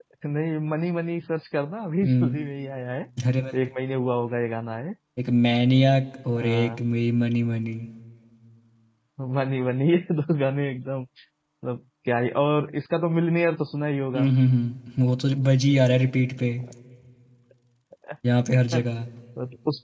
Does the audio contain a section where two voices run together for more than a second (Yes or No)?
No